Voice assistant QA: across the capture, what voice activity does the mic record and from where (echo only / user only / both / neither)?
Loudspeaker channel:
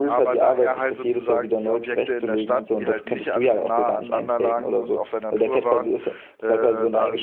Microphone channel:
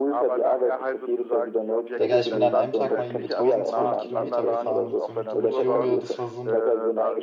both